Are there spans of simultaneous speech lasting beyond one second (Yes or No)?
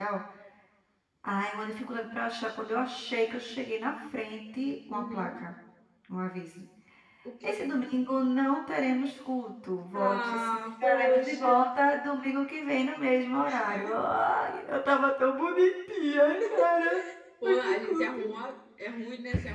Yes